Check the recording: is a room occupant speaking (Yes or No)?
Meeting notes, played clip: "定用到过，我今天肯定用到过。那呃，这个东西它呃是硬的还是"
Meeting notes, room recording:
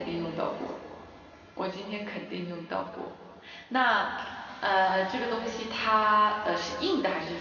No